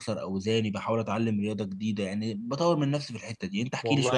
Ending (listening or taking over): taking over